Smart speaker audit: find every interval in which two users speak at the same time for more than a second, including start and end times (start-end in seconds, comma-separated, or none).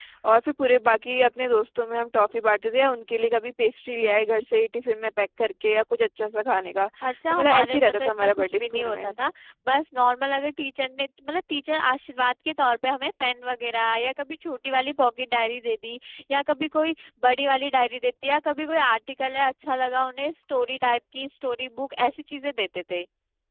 7.3-9.1